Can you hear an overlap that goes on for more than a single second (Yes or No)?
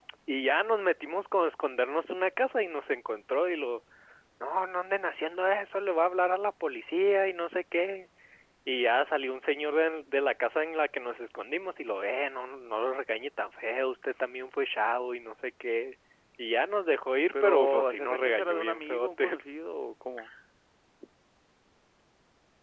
Yes